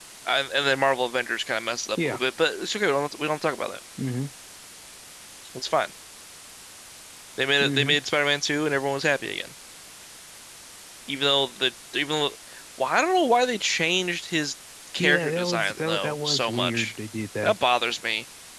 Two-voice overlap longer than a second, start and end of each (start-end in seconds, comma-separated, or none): 15.0-16.9